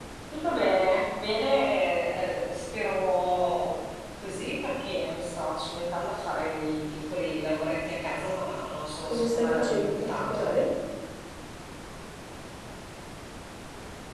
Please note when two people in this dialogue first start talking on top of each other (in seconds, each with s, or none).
9.1 s